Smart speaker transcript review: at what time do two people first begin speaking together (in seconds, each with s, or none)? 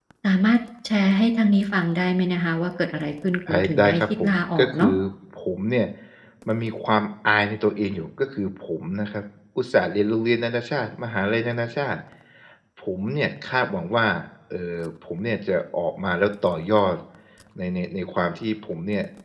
3.5 s